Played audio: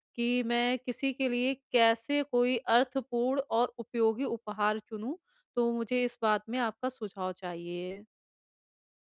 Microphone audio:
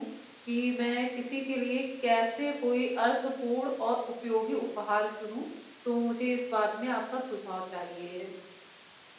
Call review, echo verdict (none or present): present